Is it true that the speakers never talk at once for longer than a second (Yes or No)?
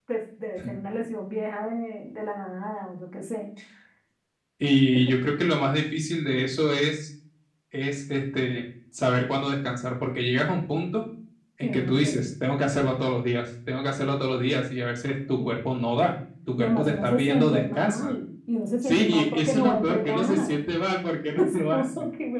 No